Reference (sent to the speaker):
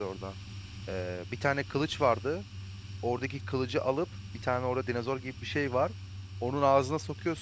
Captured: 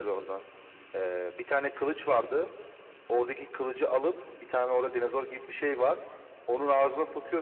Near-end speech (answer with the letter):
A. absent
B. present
A